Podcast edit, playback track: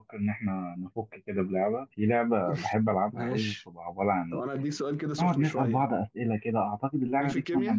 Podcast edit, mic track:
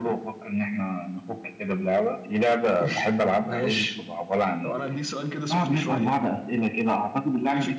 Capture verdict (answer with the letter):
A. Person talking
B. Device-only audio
B